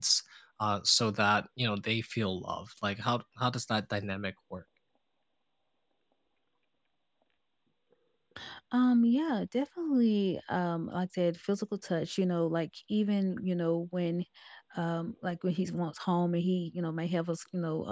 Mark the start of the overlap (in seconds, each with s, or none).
none